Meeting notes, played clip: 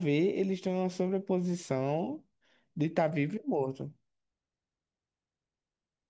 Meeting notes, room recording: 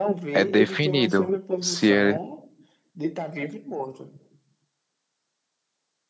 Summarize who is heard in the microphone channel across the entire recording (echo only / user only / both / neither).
both